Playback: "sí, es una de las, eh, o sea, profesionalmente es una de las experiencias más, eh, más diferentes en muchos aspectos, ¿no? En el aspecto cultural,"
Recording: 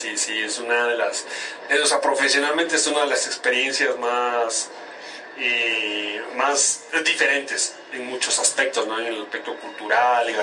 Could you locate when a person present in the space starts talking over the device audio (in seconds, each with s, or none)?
none